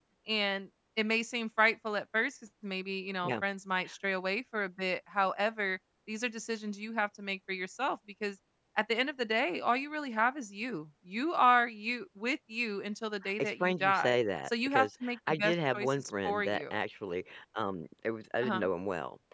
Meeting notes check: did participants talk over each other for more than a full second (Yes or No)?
Yes